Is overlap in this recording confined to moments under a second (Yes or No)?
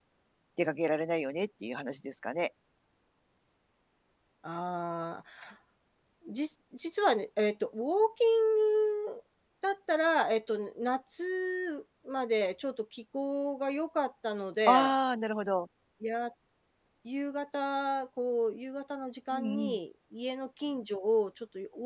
Yes